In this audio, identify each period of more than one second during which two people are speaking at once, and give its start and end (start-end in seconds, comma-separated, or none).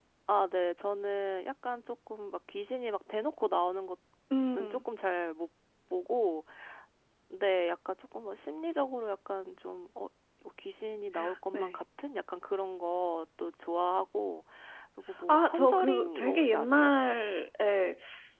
15.3-16.9